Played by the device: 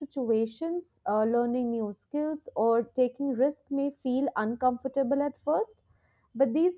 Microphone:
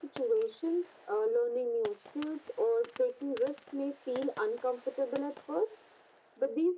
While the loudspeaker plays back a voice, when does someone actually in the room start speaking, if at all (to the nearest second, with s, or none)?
none